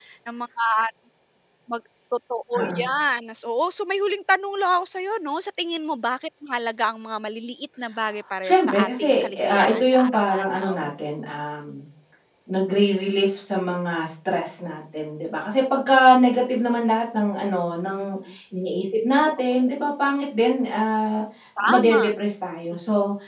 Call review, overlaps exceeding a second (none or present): present